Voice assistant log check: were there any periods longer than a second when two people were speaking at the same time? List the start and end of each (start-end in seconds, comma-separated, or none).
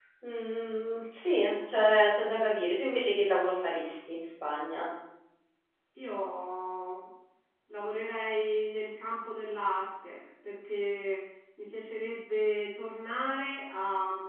none